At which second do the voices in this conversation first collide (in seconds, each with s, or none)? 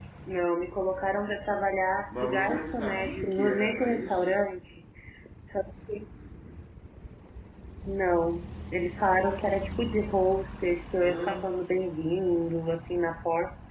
2.2 s